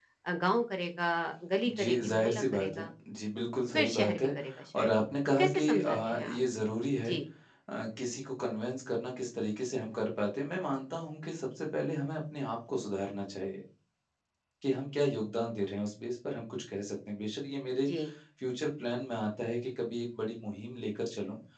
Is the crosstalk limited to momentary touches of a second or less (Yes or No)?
No